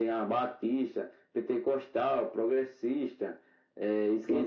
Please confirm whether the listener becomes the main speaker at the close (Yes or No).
Yes